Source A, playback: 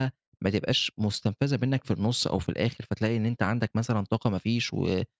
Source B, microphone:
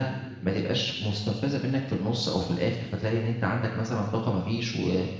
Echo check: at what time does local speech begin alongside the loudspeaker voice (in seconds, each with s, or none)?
none